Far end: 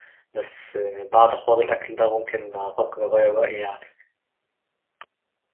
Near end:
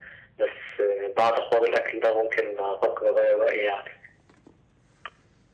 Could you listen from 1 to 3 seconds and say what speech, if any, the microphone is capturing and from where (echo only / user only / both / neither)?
echo only